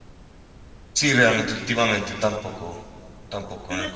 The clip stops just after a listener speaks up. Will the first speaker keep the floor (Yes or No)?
No